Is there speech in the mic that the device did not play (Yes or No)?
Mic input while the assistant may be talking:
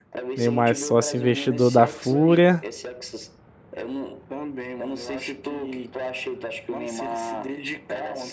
Yes